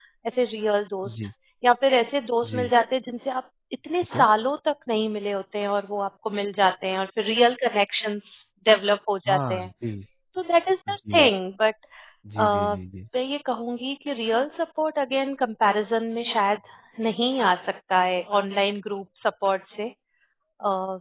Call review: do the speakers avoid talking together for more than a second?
Yes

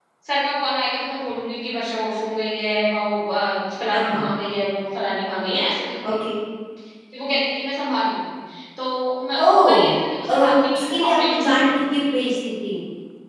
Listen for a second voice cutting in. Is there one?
Yes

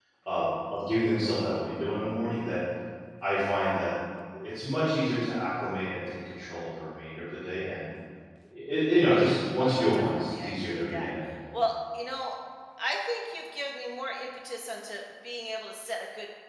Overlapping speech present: Yes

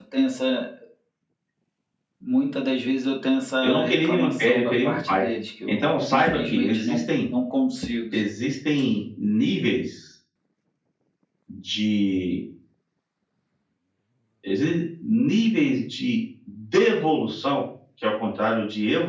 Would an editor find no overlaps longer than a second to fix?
No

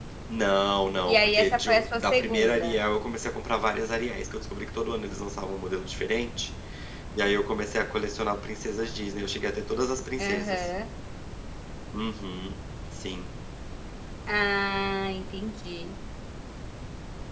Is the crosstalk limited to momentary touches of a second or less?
No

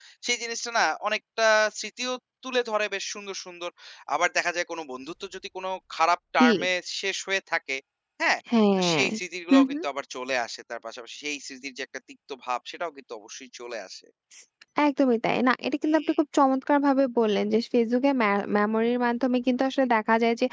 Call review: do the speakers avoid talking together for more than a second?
Yes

